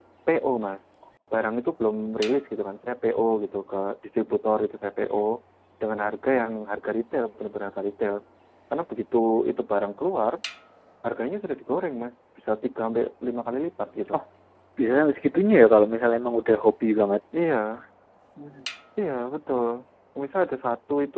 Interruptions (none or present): none